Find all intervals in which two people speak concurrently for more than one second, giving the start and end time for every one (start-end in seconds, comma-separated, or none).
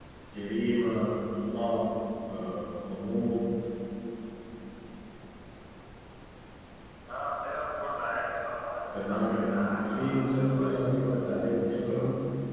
8.9-10.7